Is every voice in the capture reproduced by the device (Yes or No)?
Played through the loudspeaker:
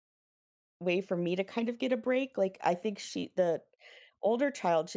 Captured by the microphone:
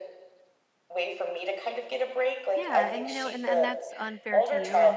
No